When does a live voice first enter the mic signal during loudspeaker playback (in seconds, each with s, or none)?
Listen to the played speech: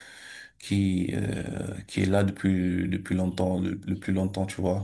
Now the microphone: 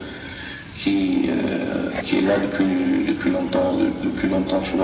none